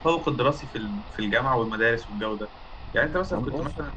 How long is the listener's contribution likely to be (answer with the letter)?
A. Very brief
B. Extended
A